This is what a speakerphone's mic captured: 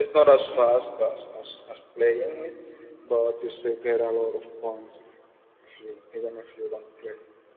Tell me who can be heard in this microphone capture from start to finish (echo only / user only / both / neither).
echo only